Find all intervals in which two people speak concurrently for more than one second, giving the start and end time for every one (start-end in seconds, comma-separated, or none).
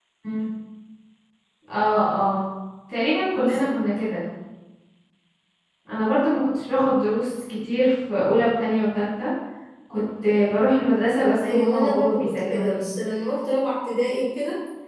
11.4-12.9